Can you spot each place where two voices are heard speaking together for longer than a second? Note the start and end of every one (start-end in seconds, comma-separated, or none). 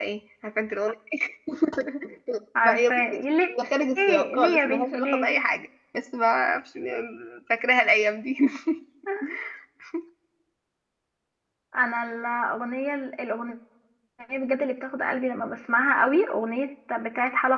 4.1-5.3